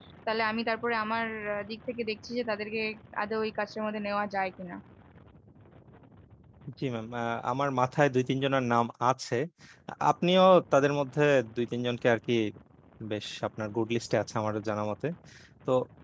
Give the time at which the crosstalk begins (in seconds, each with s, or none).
none